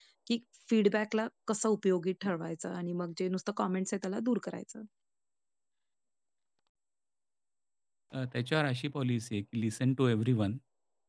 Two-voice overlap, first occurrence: none

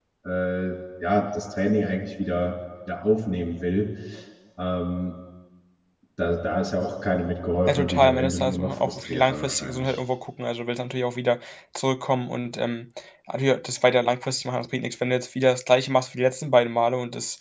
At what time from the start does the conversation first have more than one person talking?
7.7 s

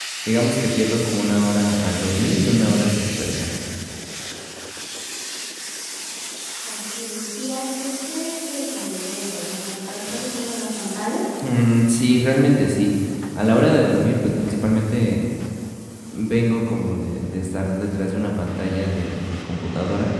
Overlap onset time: none

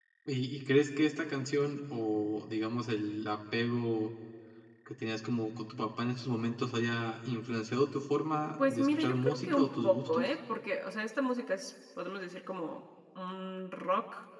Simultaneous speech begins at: 8.6 s

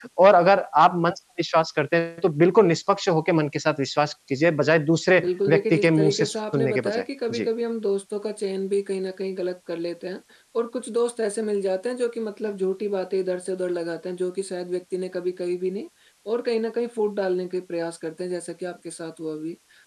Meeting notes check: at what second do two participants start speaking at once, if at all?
5.2 s

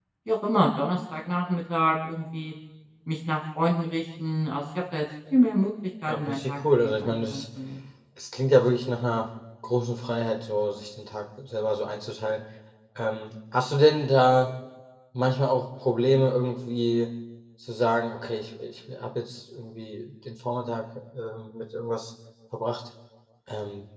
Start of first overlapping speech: 6.1 s

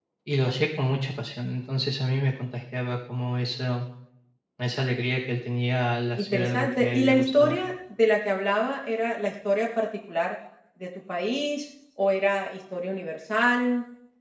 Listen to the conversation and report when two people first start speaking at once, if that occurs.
6.2 s

